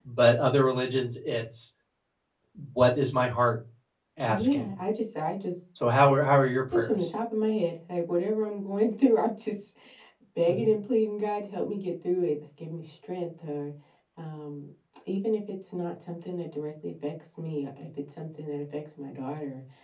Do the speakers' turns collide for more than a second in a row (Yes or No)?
No